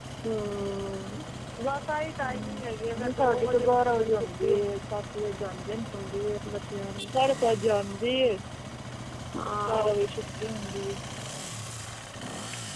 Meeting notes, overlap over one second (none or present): present